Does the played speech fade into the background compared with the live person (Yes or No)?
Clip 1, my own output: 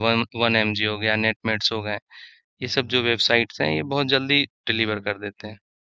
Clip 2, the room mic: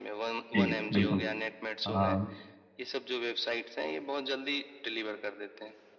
Yes